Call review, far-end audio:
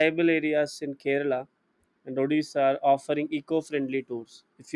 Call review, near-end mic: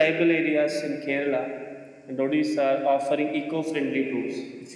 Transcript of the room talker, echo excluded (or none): none